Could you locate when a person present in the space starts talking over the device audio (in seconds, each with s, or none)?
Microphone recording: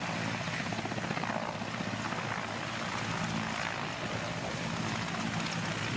none